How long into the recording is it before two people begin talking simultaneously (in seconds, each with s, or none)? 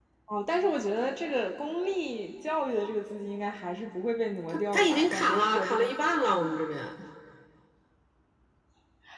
4.5 s